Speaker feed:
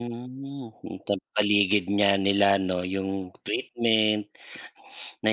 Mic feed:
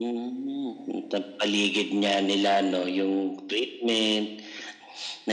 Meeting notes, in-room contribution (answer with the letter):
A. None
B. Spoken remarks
A